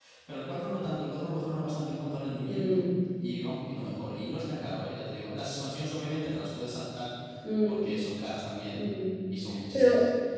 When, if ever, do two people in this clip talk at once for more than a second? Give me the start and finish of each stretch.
none

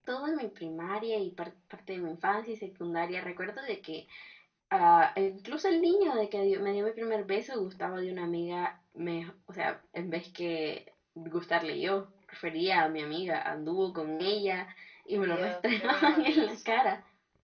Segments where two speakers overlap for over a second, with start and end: 15.3-16.6

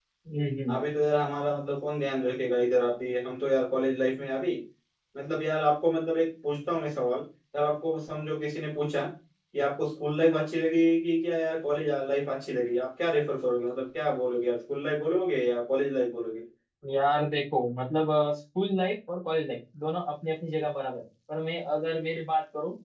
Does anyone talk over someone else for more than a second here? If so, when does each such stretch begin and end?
none

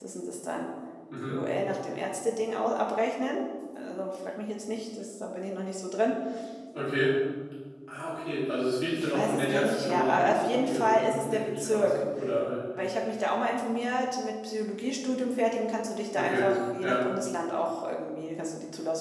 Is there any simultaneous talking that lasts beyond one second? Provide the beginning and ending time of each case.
9.0-12.0

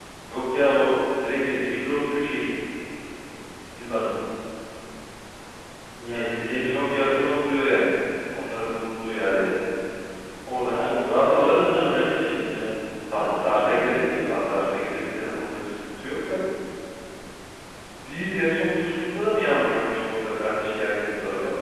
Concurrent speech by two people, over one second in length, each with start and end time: 6.1-7.3, 10.7-12.1, 13.1-14.4

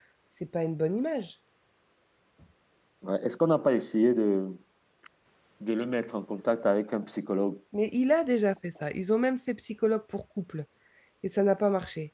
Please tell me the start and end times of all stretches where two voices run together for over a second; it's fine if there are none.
none

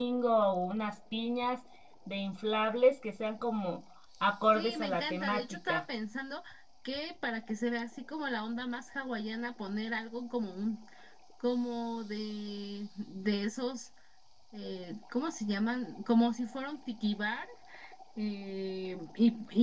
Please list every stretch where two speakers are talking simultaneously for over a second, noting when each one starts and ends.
4.5-5.8

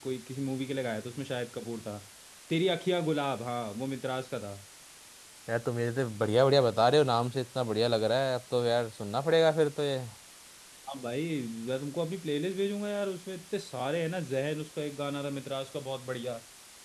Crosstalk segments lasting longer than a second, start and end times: none

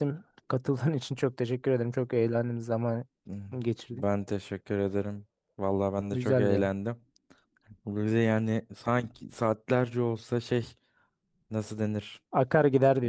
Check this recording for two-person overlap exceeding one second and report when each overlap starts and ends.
none

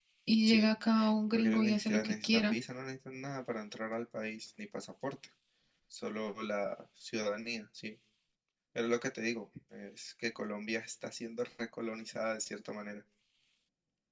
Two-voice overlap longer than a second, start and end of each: 1.4-2.5

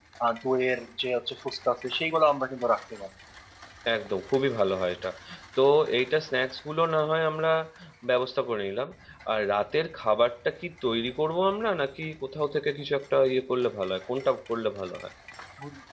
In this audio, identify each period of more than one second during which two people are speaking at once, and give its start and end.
none

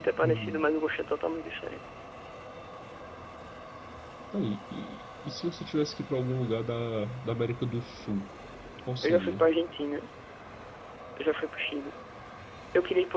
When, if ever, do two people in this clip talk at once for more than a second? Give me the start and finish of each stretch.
none

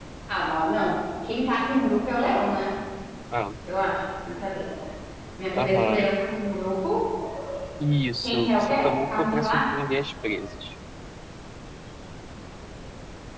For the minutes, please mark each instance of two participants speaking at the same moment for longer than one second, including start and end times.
8.2-9.7

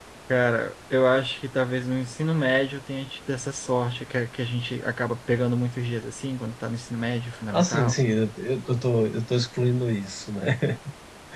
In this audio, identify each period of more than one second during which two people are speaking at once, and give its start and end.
none

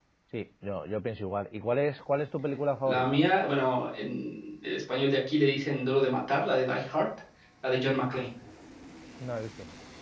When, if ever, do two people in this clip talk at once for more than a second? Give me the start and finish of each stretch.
none

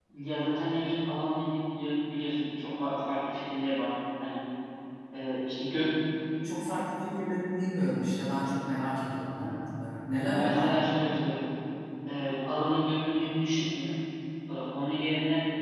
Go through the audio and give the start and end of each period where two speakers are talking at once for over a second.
none

